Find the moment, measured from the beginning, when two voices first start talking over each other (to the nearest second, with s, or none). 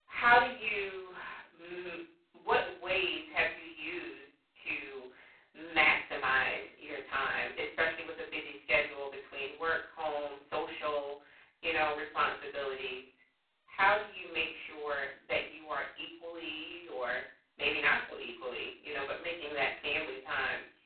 none